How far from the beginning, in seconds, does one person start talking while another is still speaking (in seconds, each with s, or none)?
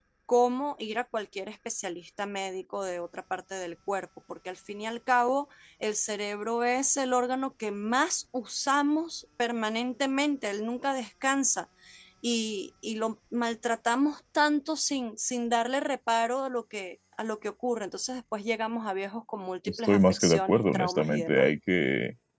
19.7 s